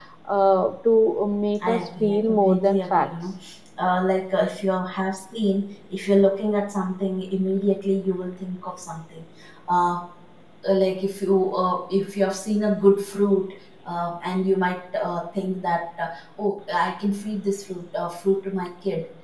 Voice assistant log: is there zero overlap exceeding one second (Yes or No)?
No